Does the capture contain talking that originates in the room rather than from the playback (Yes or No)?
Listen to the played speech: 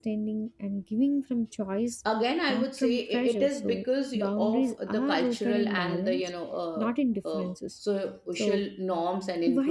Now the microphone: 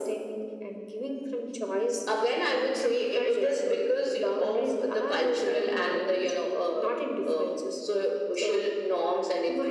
No